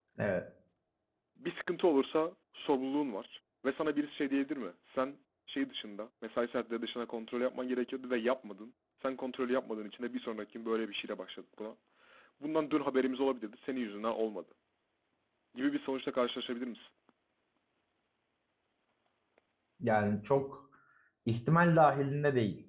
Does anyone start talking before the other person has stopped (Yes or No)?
No